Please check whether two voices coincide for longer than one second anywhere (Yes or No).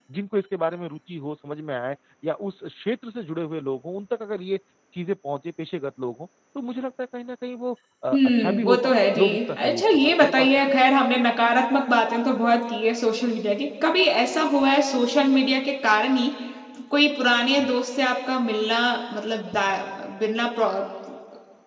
Yes